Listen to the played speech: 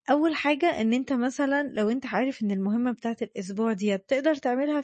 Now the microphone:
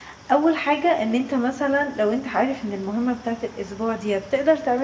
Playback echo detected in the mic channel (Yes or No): Yes